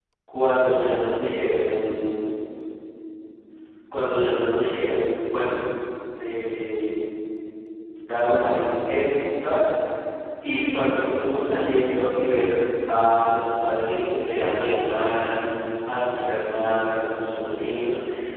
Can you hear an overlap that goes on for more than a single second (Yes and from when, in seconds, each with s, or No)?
No